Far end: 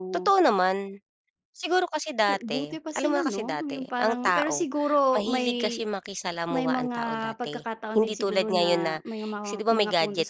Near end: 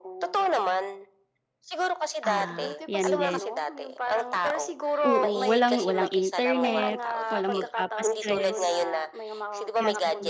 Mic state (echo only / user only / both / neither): both